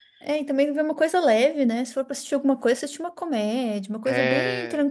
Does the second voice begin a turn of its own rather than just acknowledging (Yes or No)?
No